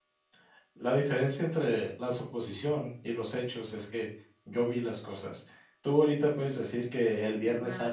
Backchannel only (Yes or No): Yes